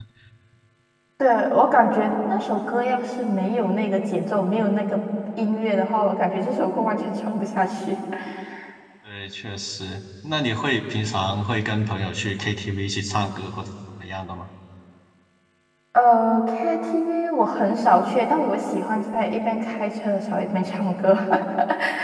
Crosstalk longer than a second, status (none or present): none